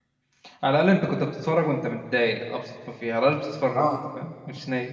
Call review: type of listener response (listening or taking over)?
listening